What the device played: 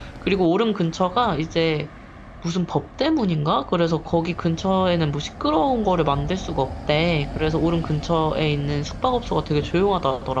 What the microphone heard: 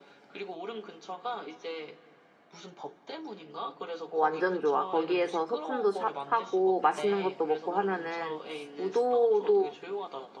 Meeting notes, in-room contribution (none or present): present